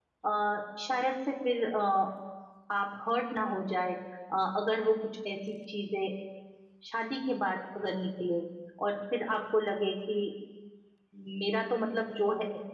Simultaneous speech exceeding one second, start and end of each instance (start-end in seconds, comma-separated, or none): none